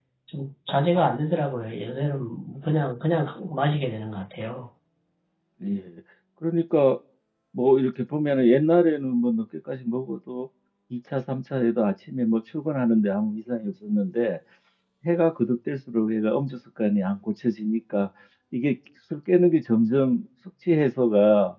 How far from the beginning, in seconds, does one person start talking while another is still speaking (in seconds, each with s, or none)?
none